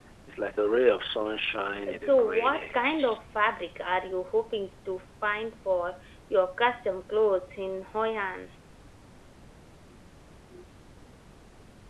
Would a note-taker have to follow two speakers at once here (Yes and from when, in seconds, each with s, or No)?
Yes, from 1.9 s